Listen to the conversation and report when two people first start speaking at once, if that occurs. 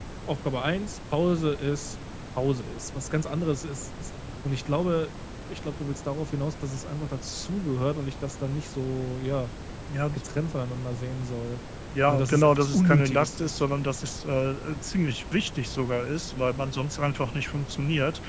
12 s

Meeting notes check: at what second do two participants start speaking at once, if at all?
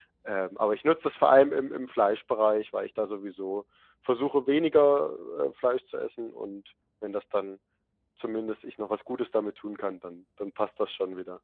none

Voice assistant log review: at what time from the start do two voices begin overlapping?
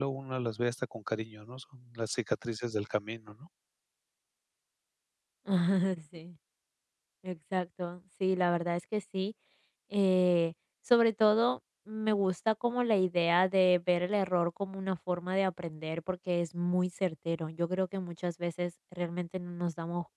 none

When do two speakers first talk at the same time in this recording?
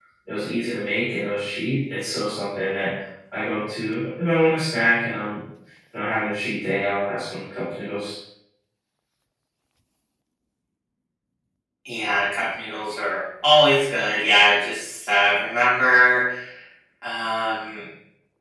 none

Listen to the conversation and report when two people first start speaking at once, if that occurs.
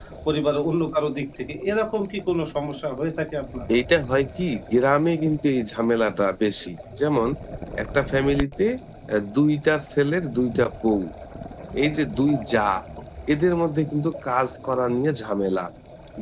none

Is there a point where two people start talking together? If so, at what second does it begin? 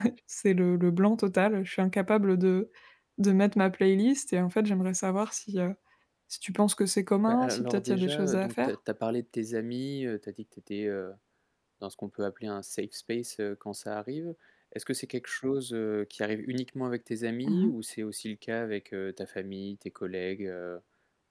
7 s

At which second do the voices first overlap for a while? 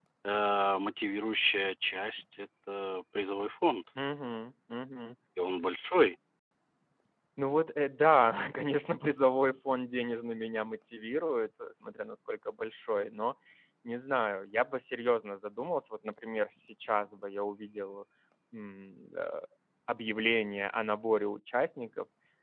none

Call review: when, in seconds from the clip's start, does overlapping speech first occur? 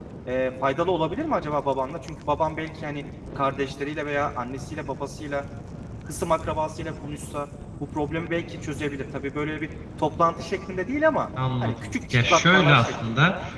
11 s

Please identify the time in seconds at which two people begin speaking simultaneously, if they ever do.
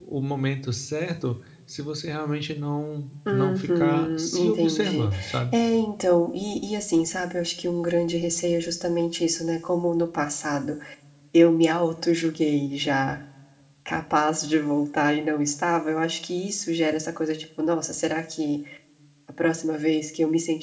3 s

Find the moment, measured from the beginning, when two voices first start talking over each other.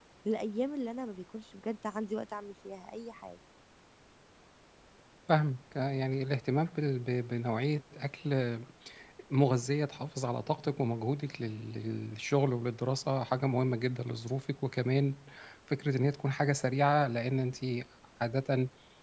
none

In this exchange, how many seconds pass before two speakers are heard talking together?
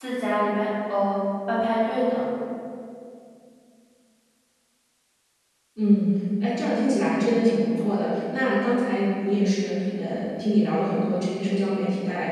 none

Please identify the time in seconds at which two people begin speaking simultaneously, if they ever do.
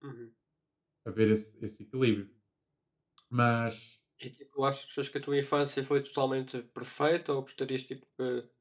none

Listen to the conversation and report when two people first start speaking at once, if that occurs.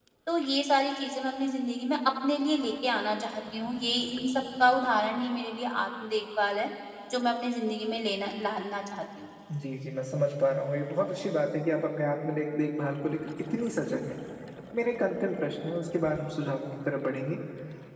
none

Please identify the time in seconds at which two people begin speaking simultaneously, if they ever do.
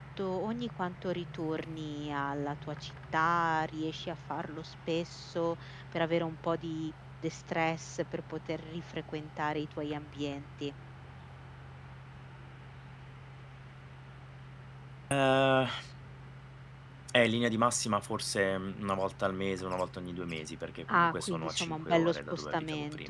21 s

